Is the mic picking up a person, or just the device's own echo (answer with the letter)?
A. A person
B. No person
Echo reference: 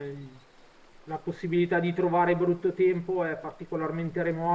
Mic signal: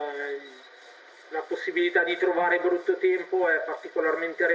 B